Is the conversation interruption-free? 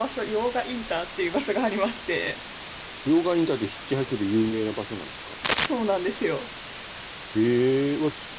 Yes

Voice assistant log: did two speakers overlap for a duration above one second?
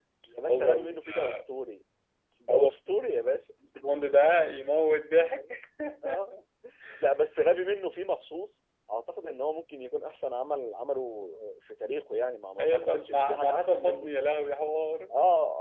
Yes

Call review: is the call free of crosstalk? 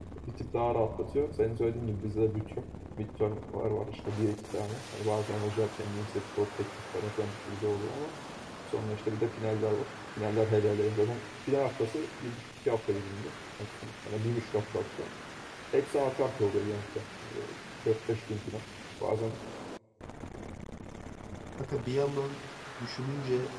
Yes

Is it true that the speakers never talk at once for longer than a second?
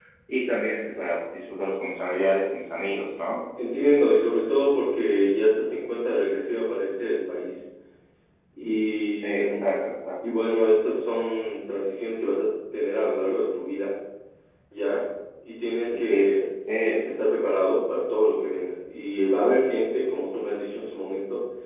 Yes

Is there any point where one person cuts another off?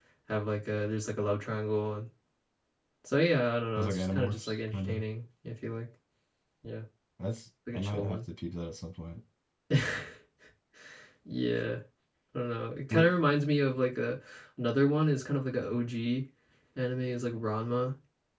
Yes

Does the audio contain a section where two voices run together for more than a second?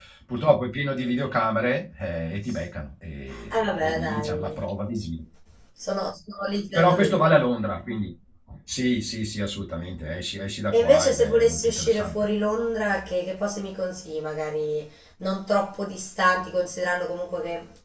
Yes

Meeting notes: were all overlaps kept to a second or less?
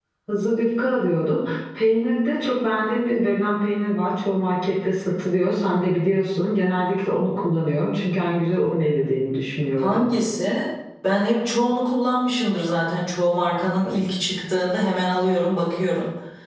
Yes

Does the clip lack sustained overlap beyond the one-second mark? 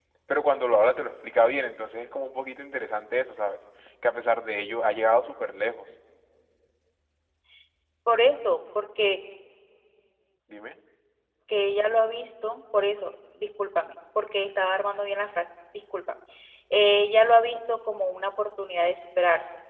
Yes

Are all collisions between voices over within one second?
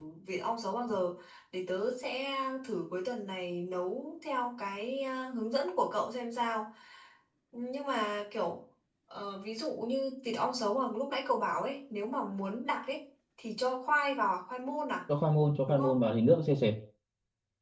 Yes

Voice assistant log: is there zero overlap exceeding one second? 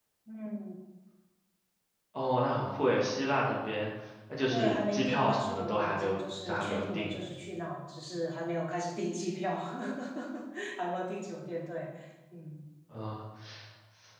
No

